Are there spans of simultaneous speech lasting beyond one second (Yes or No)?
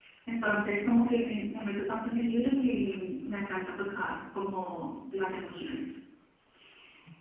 No